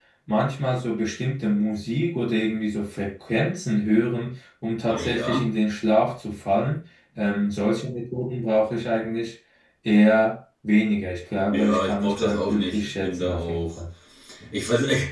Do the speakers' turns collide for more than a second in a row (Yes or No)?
Yes